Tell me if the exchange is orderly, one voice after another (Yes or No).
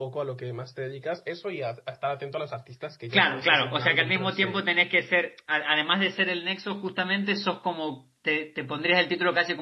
No